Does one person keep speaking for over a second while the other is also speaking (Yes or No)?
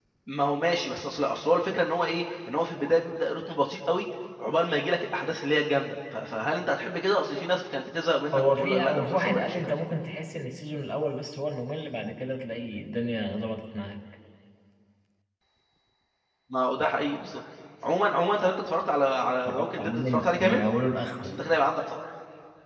Yes